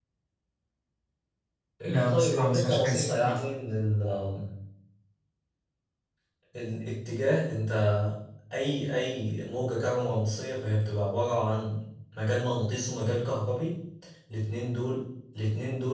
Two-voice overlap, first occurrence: 2.1 s

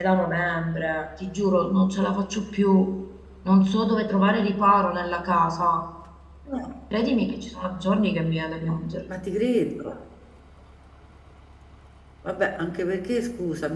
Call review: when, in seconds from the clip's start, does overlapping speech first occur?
none

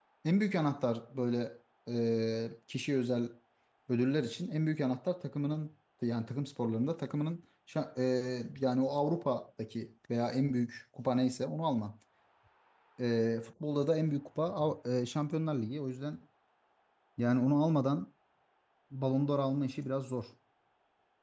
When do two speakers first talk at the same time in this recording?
none

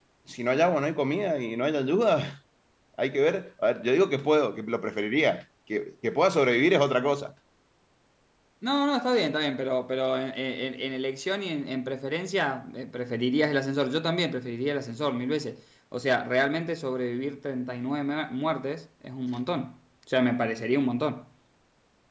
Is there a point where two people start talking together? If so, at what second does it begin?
none

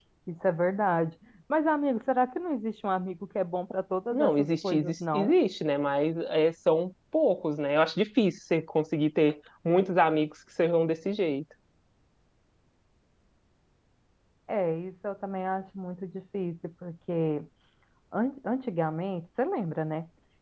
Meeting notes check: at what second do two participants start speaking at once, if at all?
4.1 s

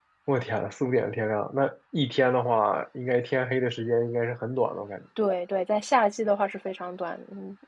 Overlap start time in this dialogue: none

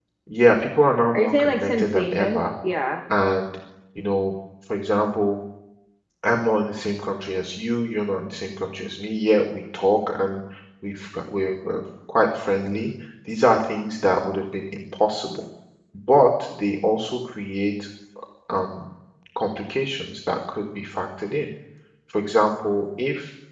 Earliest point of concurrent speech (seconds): 1.1 s

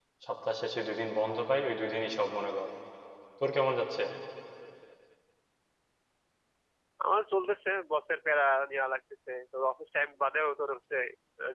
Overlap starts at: none

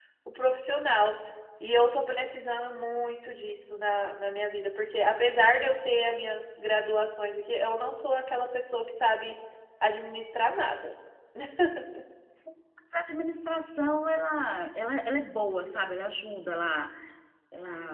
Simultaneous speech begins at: none

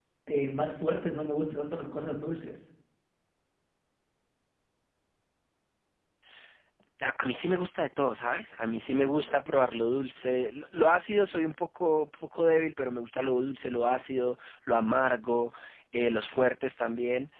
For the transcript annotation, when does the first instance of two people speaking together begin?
none

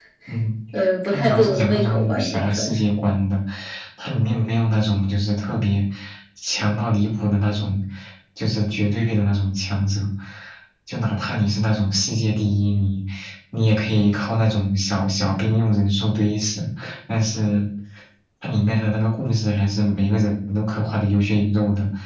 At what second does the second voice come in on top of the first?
1.1 s

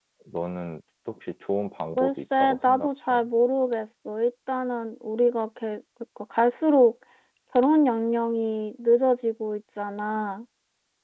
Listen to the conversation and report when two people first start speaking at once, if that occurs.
2.0 s

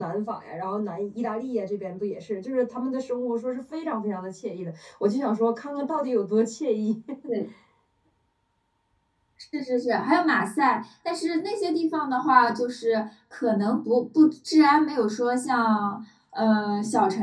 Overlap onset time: none

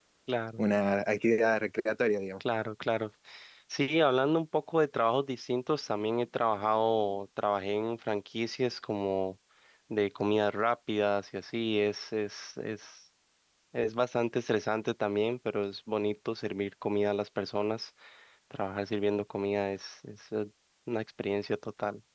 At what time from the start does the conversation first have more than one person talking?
none

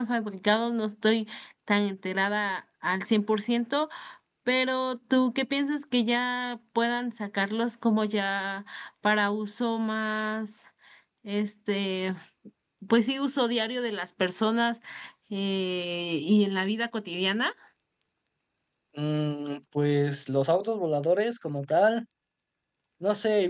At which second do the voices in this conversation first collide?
none

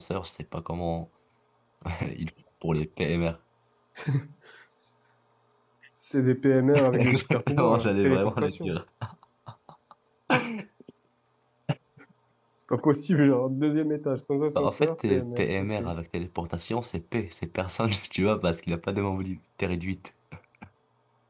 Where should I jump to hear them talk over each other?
6.9 s

